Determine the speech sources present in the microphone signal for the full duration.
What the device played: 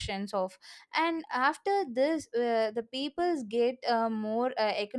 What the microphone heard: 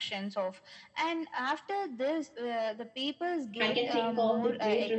both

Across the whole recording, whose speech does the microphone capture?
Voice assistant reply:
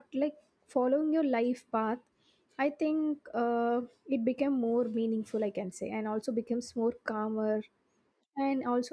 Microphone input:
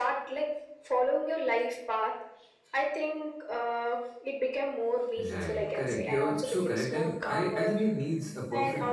both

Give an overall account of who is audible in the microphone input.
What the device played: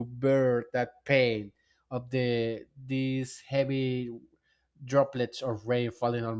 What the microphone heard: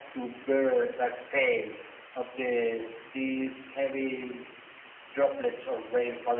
echo only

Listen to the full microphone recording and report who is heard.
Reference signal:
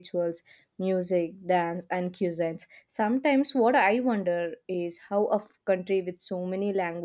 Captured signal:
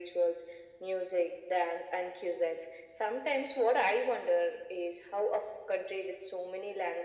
echo only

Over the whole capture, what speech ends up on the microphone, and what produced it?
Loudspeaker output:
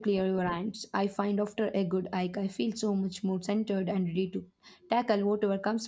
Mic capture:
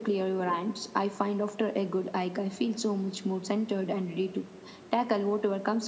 echo only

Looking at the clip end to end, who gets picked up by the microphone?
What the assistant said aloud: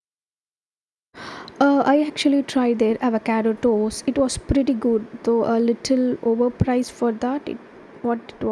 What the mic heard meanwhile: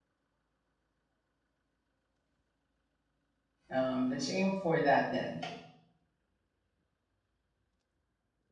user only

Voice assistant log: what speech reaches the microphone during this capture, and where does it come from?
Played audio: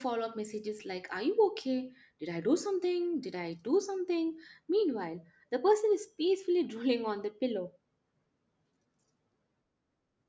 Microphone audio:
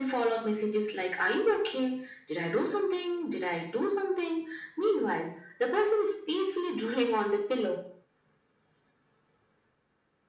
echo only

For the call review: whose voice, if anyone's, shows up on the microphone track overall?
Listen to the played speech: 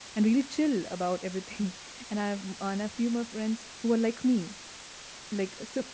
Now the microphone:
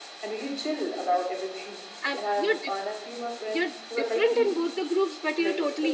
both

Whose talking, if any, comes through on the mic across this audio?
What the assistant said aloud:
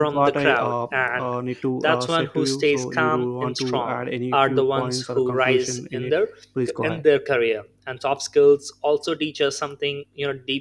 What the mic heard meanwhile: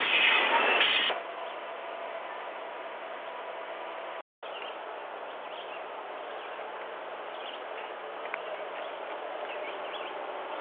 neither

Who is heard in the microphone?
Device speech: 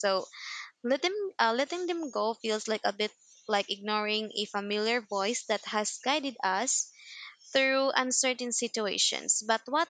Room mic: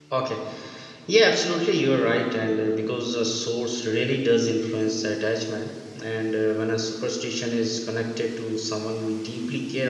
user only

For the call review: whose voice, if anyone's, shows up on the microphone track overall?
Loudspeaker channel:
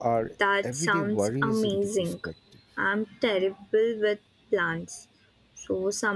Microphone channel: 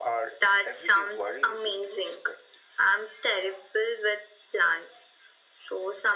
echo only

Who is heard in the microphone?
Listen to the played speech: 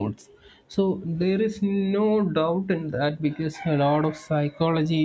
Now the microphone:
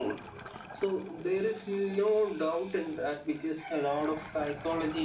echo only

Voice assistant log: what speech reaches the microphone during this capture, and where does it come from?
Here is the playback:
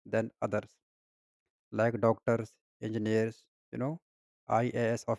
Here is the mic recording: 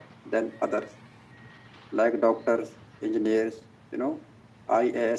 echo only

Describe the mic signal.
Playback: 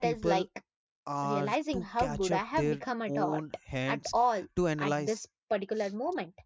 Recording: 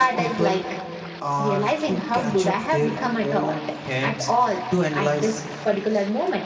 echo only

